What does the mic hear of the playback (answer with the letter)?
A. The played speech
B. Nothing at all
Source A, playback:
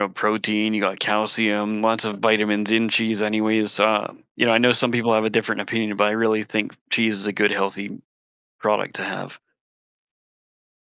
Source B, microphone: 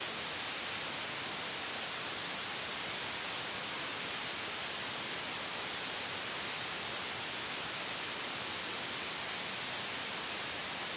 B